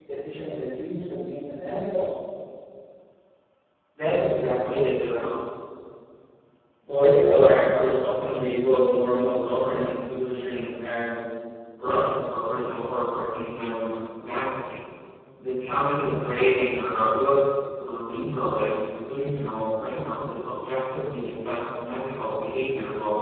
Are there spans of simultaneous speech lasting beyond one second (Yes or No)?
No